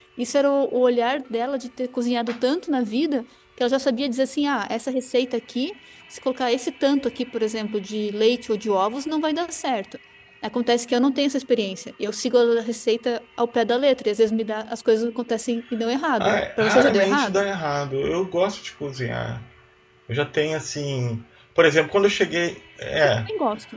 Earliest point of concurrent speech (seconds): 16.2 s

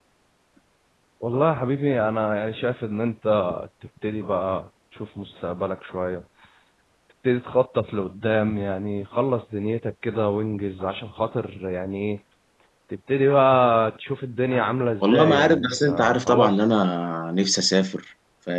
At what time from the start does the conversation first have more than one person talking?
15.0 s

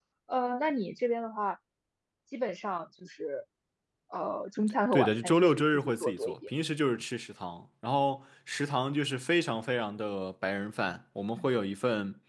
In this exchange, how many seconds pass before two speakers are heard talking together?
4.9 s

